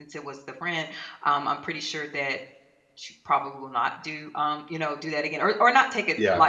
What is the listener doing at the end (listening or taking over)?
listening